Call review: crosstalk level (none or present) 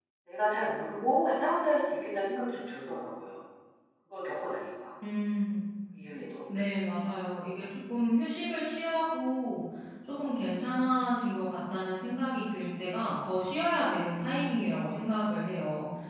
none